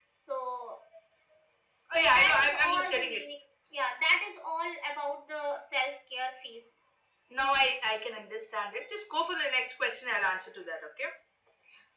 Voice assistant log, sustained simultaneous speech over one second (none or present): present